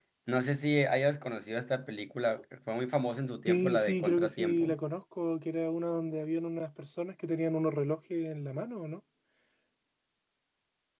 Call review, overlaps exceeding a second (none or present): present